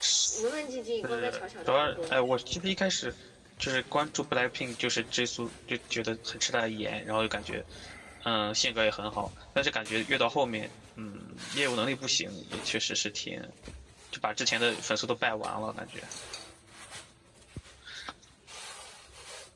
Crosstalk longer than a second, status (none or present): present